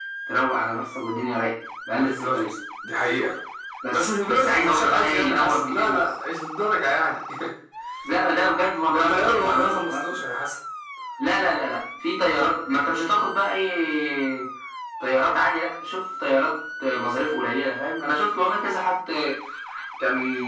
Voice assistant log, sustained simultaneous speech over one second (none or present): present